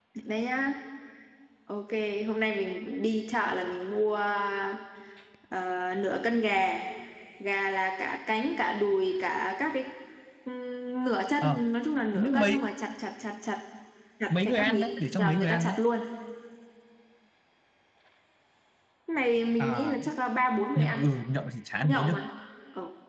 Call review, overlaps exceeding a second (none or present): present